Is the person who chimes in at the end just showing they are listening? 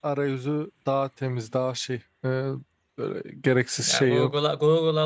No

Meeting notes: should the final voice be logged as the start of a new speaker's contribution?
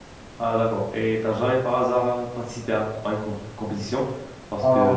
Yes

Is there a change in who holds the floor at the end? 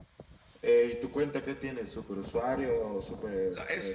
Yes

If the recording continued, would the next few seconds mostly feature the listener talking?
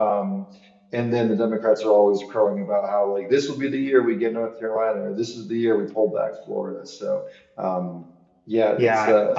Yes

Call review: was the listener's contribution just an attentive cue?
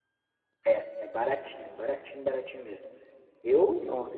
Yes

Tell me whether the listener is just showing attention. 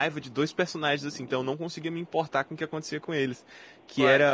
Yes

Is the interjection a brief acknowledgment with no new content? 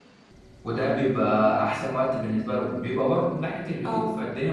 Yes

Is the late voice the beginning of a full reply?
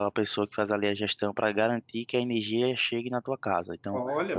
No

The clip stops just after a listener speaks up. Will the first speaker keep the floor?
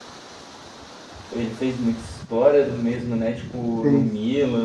Yes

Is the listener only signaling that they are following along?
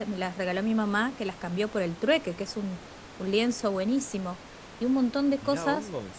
No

